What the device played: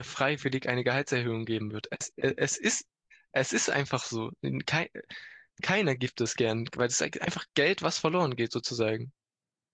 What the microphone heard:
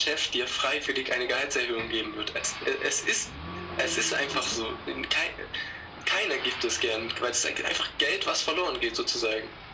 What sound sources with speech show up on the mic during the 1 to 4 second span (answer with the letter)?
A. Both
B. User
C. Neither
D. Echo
D